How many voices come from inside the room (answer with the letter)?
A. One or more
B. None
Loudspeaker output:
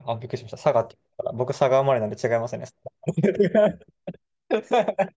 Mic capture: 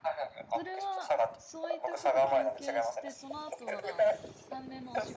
A